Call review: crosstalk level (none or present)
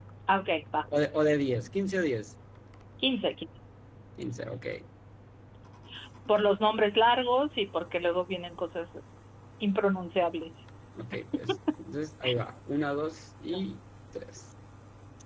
none